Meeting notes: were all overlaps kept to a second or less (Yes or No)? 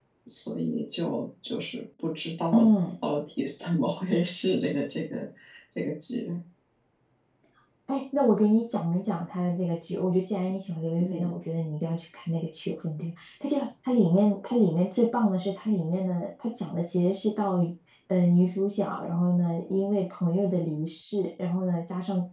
Yes